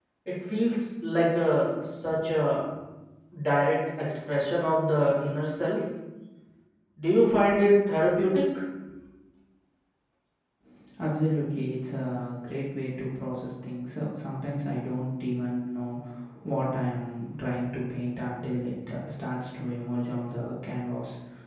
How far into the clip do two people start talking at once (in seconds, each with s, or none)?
none